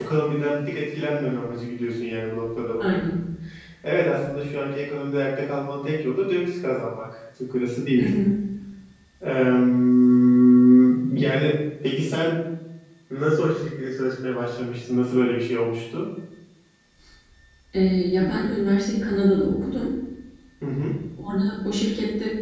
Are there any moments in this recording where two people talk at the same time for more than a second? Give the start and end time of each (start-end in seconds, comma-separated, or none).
none